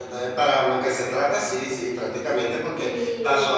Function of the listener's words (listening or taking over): listening